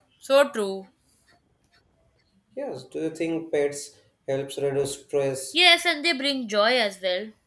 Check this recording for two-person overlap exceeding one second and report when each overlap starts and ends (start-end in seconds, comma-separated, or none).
none